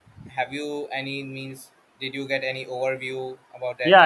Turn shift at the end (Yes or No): Yes